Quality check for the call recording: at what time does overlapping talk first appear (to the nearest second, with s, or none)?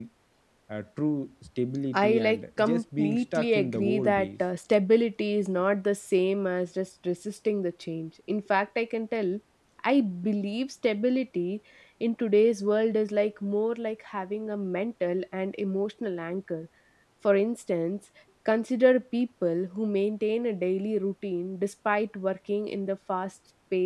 2 s